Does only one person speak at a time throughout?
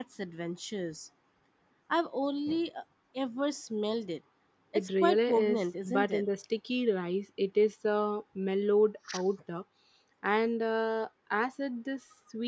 No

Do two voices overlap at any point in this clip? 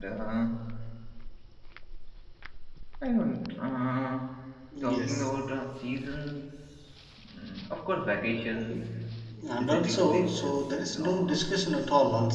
Yes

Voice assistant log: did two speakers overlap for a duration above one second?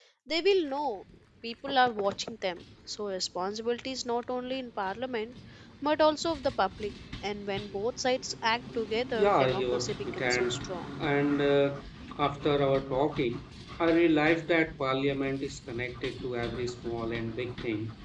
Yes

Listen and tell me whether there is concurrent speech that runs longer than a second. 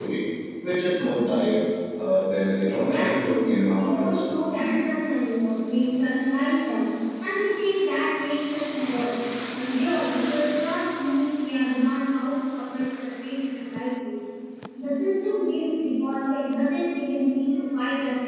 Yes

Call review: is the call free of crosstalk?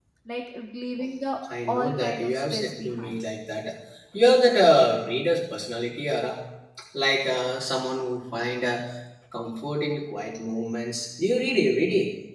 No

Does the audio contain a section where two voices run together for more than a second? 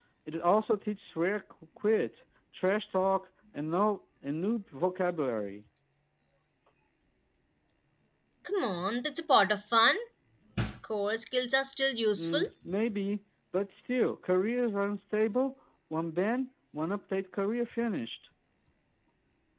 No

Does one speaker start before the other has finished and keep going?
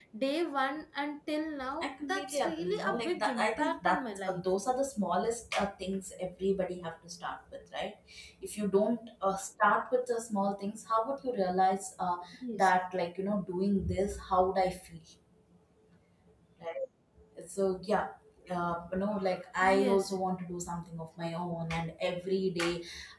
Yes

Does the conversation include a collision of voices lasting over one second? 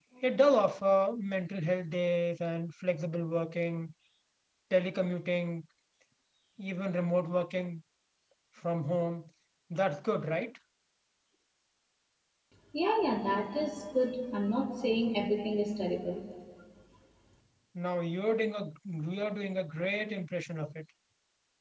No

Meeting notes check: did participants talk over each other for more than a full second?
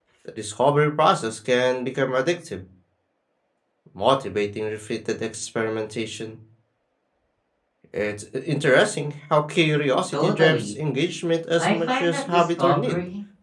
Yes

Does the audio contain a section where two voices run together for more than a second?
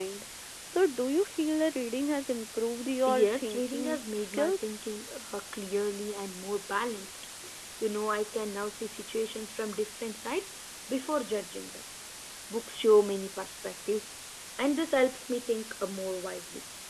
Yes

